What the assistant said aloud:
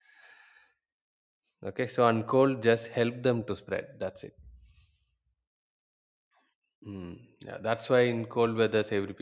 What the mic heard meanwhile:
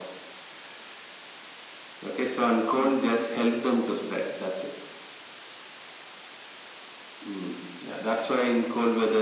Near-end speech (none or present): none